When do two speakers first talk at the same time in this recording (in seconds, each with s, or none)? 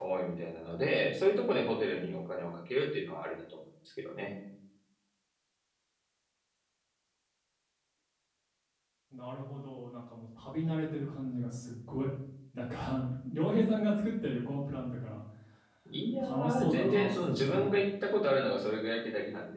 16.3 s